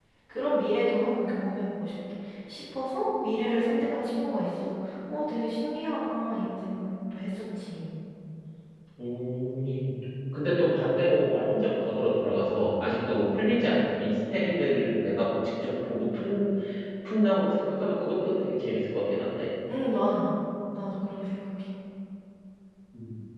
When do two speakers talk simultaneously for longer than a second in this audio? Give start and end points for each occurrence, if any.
none

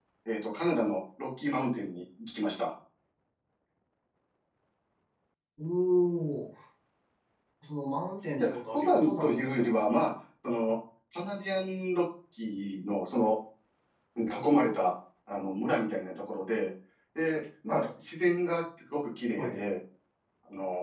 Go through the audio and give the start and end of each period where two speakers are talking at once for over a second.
8.4-9.8

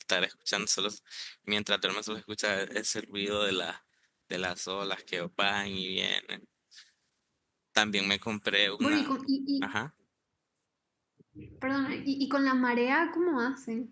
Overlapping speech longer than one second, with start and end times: none

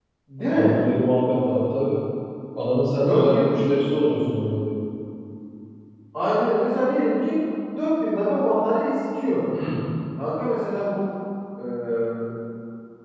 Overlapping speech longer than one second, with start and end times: none

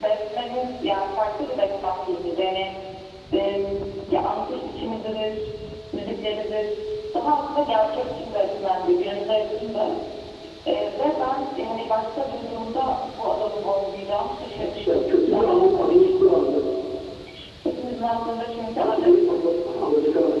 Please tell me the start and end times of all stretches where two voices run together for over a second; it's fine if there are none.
14.9-16.4

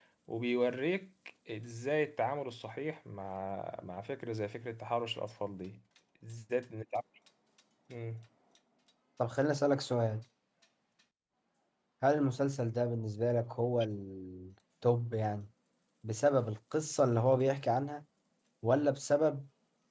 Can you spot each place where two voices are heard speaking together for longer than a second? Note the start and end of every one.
none

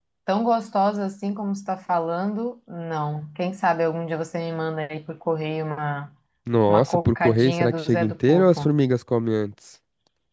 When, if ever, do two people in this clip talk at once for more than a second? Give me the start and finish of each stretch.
6.7-8.7

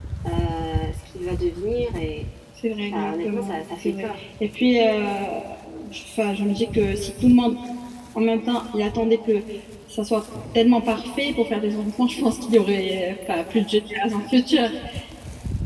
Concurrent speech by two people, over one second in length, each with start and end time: 2.9-4.2

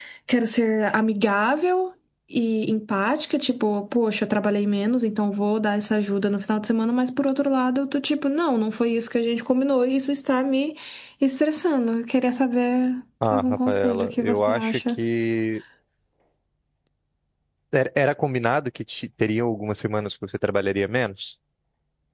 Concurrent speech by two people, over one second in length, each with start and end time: 13.3-14.8

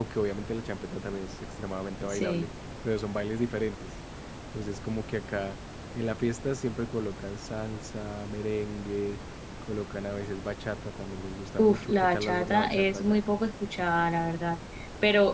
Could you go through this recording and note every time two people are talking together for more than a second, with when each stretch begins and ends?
11.6-13.2

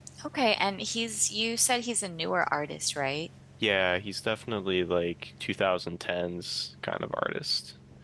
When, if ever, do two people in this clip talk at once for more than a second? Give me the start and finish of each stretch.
none

